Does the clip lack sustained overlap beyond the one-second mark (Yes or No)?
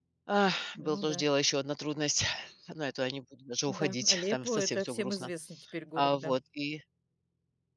No